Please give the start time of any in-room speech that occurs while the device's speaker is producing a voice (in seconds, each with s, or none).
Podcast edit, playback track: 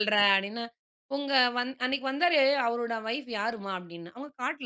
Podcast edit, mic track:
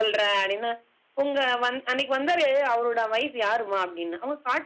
none